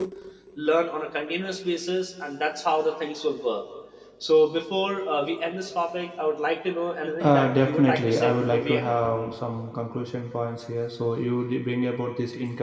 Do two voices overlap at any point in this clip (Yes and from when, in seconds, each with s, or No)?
Yes, from 7.2 s